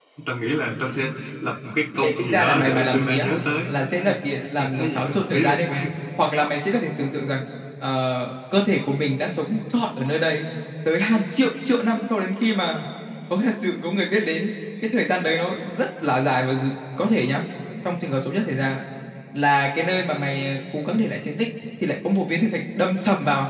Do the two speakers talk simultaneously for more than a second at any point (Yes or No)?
Yes